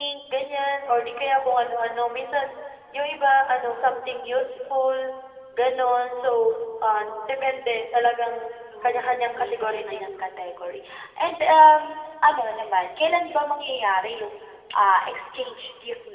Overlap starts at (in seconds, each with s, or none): 8.7 s